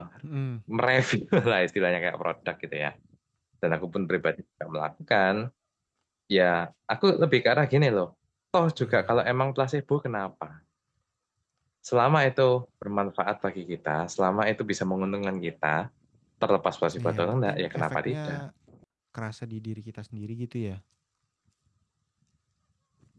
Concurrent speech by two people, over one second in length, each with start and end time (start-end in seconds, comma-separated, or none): 17.0-18.4